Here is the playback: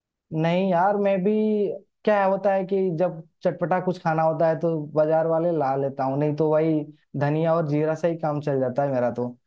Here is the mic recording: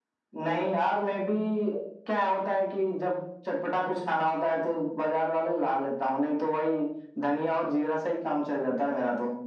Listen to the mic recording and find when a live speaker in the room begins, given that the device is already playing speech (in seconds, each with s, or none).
none